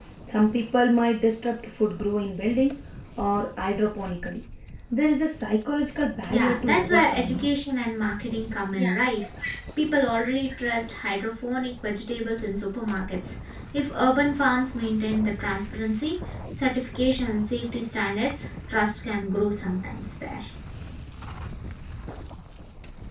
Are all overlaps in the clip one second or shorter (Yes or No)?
No